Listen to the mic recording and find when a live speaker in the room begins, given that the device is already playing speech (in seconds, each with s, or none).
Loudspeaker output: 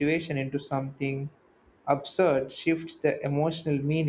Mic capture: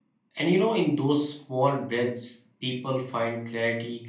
0.4 s